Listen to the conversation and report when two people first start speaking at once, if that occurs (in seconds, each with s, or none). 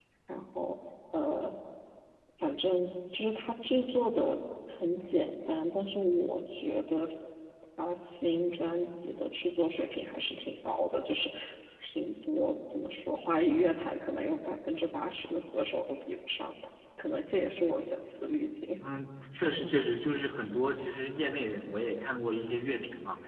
none